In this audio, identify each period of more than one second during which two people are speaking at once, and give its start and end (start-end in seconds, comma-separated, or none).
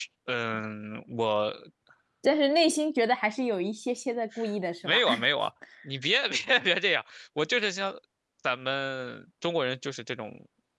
none